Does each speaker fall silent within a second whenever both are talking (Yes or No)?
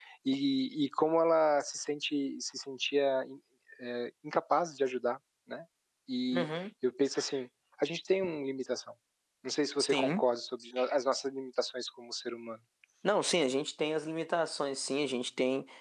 Yes